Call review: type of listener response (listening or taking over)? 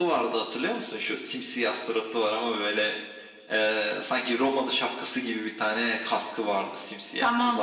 taking over